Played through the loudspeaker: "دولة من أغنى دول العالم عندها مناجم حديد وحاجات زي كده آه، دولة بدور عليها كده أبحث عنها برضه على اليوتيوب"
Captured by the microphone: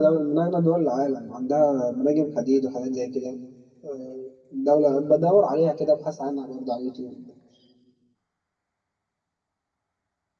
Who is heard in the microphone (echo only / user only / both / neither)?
echo only